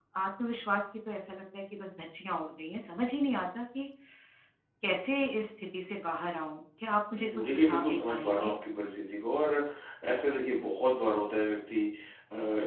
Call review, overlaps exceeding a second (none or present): present